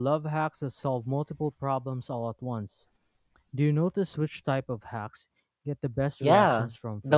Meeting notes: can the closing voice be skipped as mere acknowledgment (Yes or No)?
No